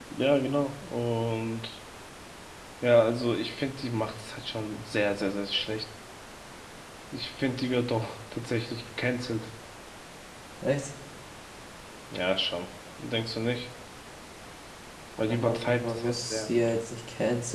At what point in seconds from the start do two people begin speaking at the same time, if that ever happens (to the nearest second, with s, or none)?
15 s